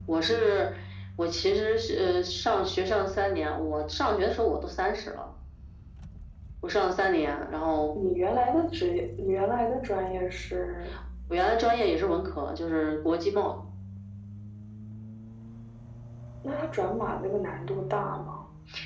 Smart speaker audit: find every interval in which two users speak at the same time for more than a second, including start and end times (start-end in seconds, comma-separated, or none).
none